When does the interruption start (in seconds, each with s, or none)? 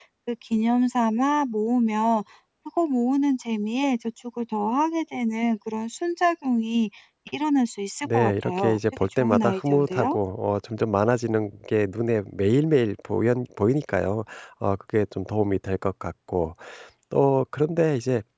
8.0 s